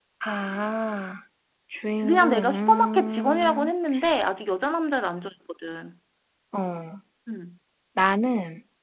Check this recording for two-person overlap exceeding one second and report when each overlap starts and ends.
2.0-3.7

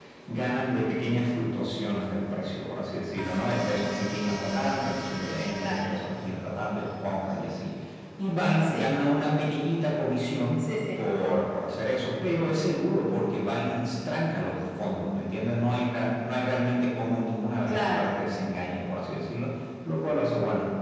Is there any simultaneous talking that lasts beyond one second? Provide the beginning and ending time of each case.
none

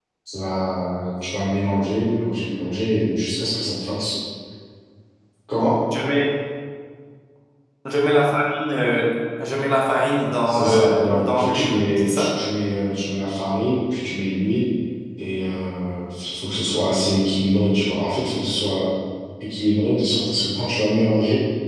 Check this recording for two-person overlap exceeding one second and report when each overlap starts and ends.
10.4-12.3

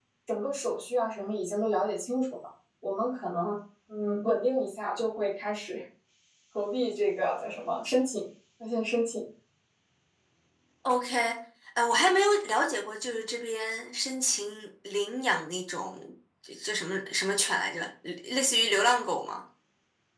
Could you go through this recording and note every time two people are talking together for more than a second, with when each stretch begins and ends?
none

